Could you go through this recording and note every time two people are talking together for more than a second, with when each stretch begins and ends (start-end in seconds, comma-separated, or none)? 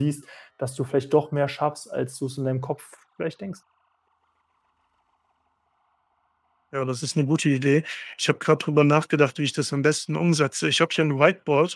none